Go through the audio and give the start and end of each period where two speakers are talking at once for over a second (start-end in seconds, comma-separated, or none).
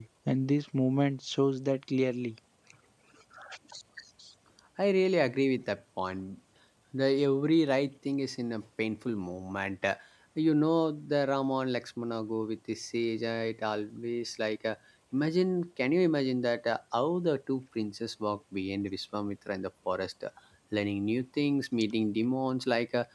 none